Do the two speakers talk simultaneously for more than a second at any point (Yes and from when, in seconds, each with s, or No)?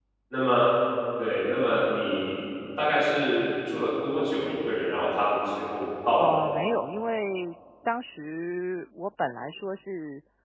No